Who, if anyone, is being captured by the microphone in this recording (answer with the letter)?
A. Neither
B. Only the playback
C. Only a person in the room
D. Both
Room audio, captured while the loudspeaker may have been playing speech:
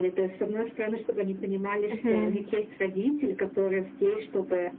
D